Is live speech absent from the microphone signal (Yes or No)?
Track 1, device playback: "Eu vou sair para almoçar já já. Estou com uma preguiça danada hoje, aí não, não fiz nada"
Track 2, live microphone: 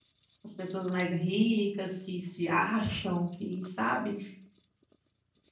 No